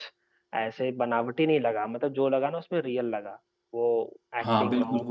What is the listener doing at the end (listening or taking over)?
taking over